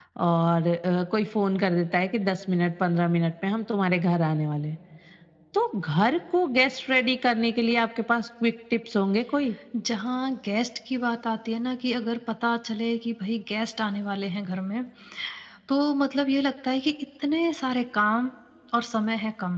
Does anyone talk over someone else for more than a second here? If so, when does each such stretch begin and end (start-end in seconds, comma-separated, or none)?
none